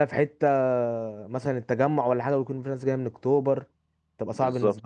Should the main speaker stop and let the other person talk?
Yes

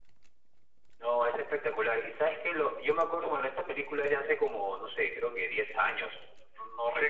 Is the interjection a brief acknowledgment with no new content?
No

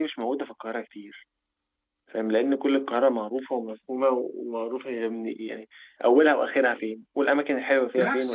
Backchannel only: No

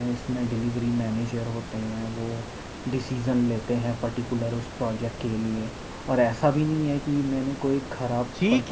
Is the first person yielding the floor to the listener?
Yes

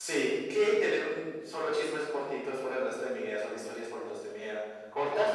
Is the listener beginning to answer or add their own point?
No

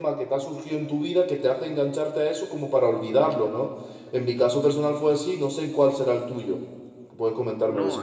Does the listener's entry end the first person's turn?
Yes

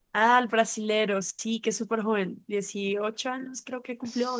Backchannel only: No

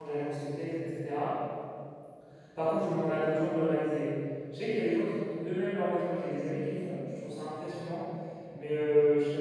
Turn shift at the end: No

